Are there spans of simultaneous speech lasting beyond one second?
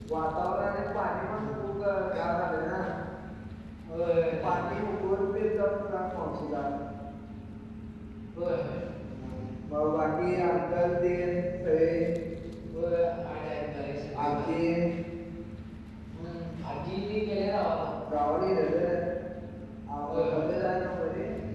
No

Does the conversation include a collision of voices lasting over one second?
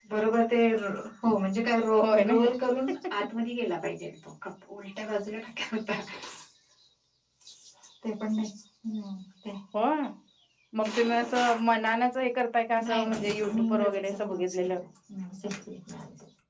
Yes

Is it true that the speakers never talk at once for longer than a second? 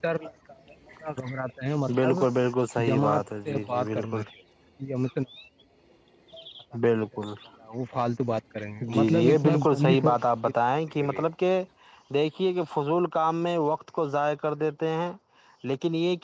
No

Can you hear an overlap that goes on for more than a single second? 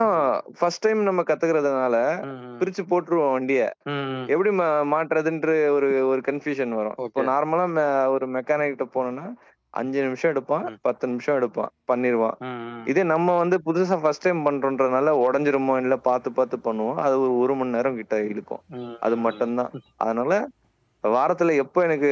No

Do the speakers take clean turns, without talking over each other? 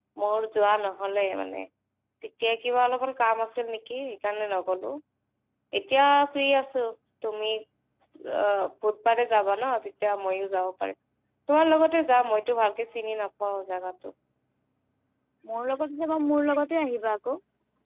Yes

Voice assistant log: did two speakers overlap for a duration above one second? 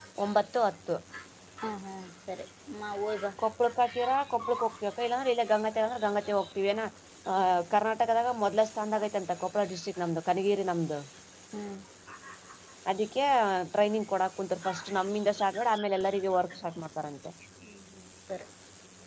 No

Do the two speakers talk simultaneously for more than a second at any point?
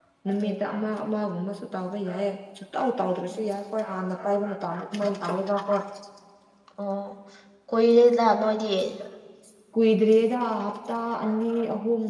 No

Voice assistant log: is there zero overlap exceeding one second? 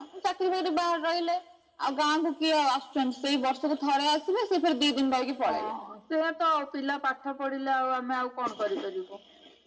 Yes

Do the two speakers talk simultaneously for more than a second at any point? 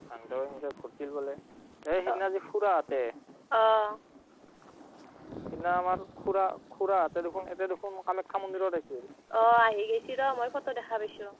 No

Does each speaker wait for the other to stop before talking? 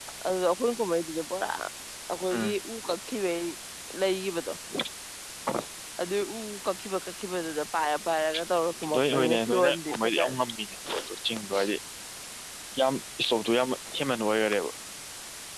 No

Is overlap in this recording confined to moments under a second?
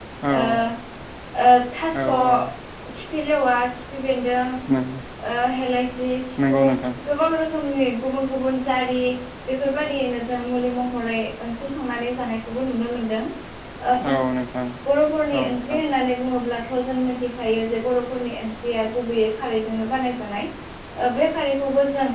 Yes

